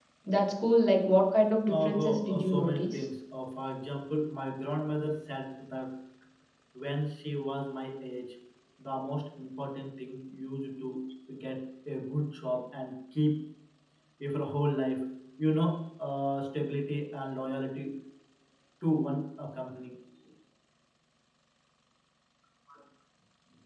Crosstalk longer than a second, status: present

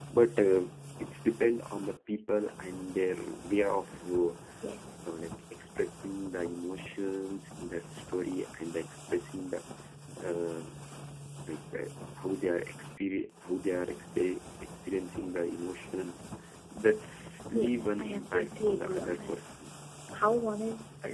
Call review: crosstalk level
present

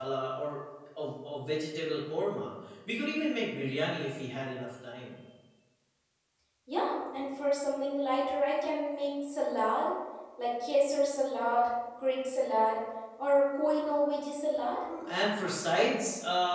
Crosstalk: none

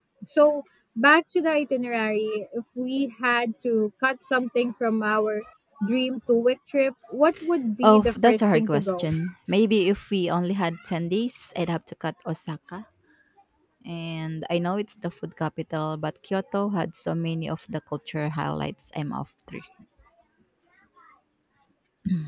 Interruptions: present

